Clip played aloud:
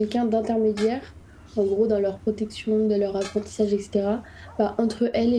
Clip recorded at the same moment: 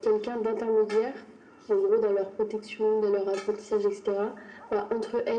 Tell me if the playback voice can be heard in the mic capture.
Yes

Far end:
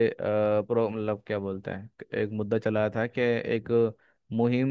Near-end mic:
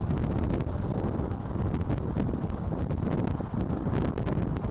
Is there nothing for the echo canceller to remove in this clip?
Yes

